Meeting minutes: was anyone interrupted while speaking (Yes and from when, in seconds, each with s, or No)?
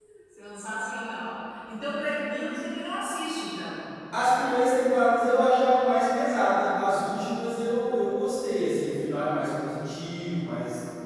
No